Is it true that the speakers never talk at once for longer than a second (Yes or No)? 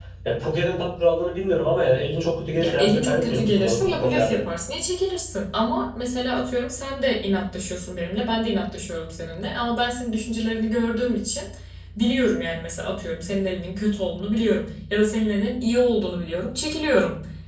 No